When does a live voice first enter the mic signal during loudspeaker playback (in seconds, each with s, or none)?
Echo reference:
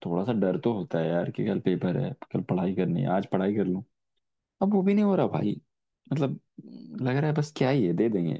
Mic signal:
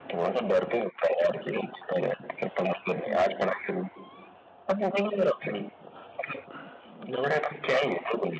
2.9 s